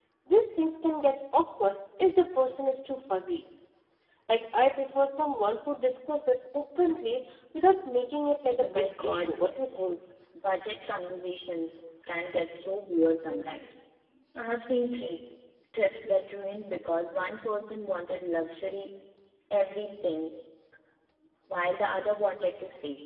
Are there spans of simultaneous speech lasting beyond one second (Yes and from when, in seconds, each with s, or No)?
Yes, from 8.6 s